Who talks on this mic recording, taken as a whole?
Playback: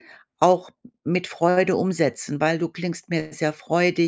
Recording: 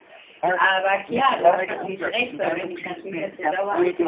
both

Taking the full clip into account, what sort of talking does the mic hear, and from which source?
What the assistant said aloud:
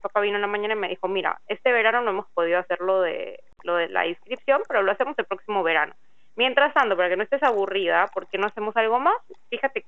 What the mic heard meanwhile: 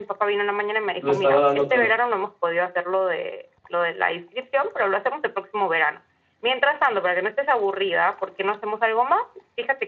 both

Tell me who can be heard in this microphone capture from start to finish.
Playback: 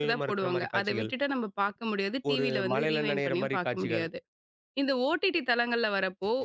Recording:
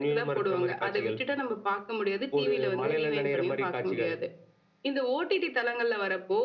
echo only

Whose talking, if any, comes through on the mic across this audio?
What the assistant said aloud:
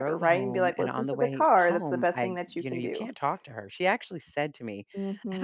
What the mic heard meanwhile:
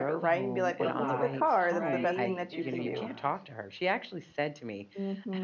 both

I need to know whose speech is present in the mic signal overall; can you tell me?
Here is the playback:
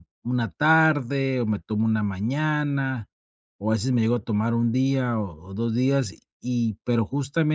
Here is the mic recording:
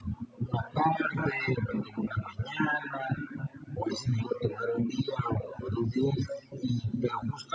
echo only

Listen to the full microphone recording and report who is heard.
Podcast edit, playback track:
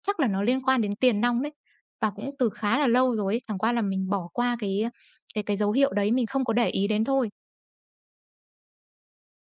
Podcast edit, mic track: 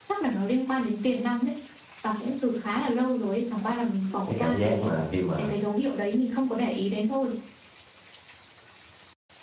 both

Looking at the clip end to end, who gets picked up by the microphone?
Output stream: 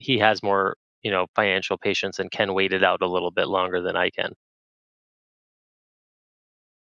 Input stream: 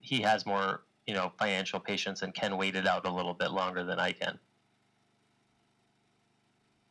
echo only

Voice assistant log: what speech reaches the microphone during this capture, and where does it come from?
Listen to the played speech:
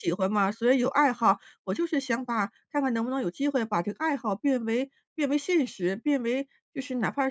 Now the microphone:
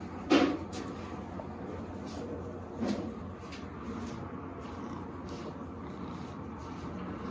neither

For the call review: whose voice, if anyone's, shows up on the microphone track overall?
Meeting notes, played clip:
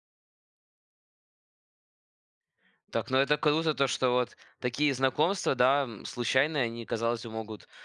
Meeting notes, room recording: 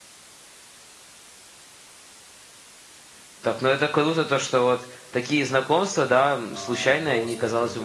both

